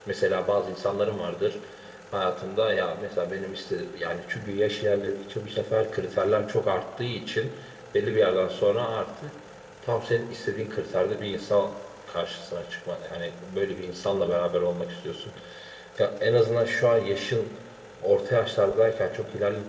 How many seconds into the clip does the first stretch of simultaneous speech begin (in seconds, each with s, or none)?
none